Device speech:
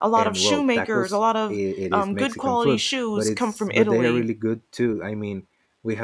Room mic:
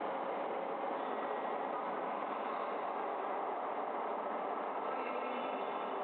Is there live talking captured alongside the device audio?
No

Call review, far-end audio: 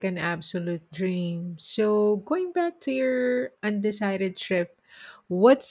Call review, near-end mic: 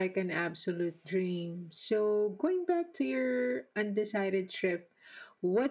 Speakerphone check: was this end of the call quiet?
Yes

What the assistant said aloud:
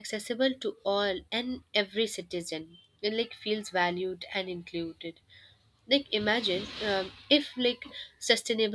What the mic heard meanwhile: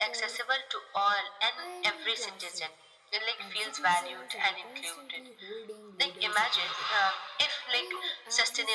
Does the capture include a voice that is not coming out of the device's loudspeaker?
Yes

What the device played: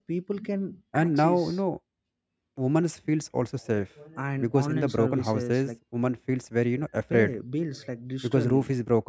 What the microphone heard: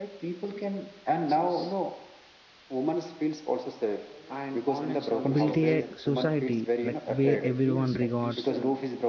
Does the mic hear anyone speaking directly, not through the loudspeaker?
Yes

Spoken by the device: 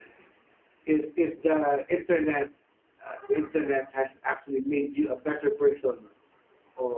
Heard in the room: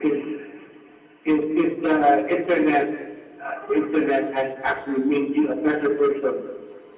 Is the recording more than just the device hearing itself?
No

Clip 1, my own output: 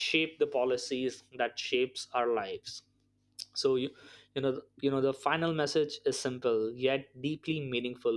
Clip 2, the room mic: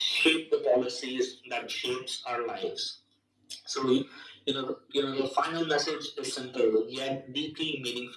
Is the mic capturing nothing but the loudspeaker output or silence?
Yes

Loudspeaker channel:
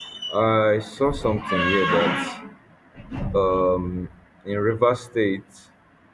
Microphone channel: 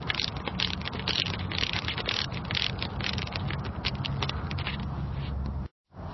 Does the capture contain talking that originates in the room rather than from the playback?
No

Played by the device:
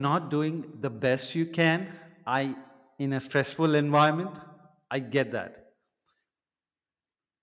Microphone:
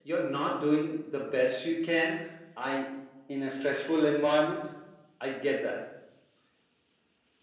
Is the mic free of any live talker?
Yes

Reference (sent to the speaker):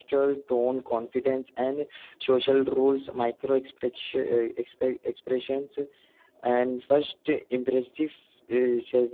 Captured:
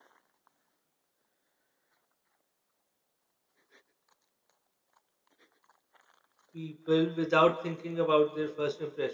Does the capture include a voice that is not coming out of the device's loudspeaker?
Yes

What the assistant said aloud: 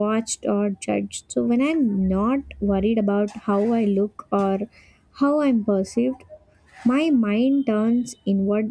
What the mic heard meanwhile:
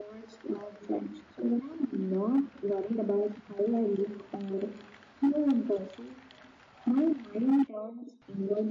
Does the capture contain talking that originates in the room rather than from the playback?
No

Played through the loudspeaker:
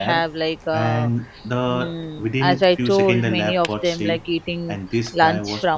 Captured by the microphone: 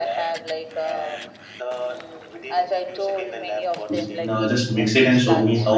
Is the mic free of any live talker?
No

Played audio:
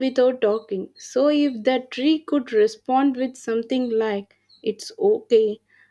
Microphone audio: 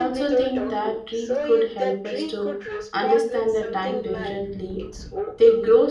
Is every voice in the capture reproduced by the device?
No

